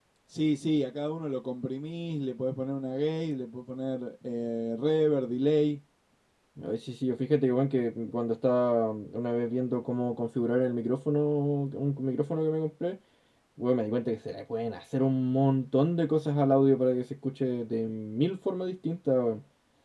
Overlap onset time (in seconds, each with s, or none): none